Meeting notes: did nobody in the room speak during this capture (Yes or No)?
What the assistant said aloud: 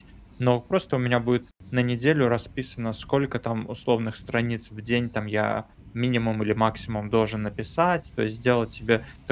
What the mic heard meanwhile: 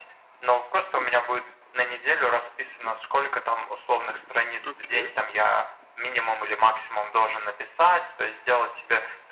No